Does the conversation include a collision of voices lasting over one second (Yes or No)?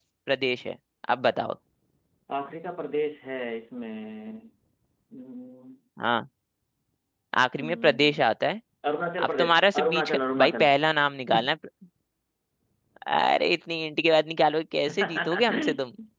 Yes